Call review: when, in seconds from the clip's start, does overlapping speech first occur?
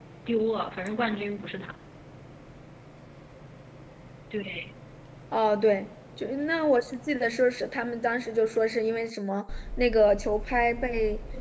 none

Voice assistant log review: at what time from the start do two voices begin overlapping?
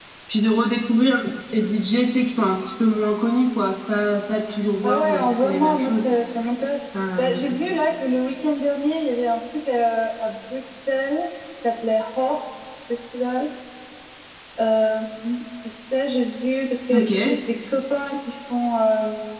5 s

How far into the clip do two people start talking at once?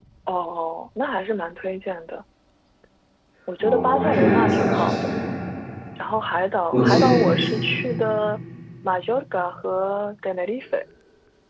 4 s

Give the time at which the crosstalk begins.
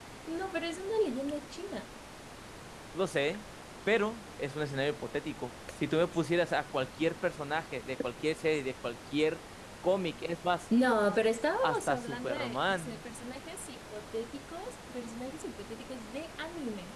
12 s

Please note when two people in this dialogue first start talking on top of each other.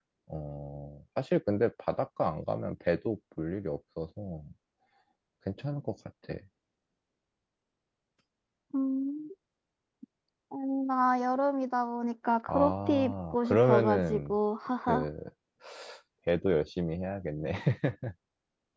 12 s

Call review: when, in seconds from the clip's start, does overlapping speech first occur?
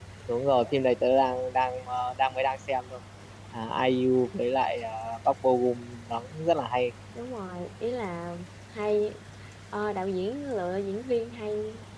none

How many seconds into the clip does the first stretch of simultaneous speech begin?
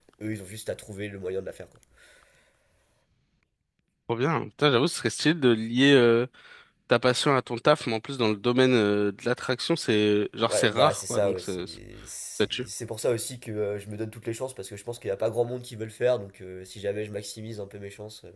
10 s

